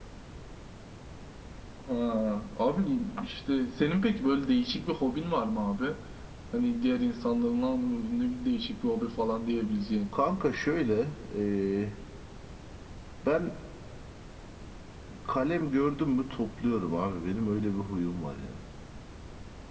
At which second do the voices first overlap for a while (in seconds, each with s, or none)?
none